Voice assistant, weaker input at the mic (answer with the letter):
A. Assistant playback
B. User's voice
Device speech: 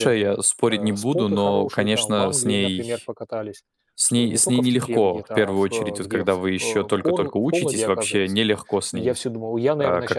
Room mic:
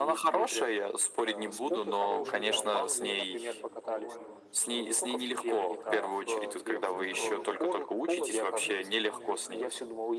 B